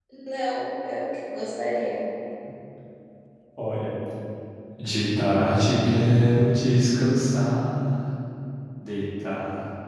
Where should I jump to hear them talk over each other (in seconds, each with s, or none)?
none